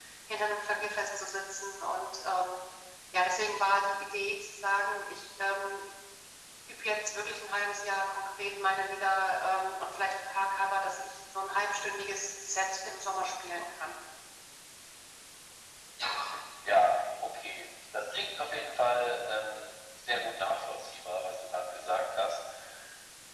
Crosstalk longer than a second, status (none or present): none